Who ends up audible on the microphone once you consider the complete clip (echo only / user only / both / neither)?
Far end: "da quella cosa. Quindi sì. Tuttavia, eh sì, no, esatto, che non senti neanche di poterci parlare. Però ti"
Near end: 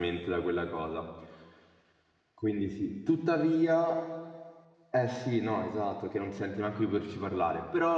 echo only